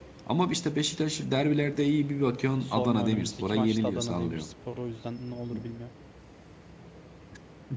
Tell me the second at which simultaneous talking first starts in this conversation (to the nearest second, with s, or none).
3 s